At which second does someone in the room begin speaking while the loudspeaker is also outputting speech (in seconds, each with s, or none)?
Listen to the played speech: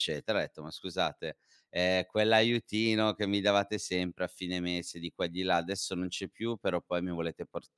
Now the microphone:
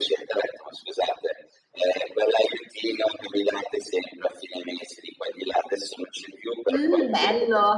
6.7 s